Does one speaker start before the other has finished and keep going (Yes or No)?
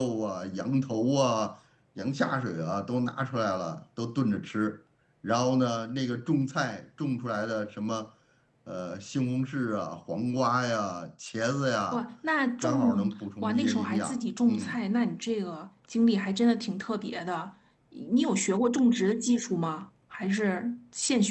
Yes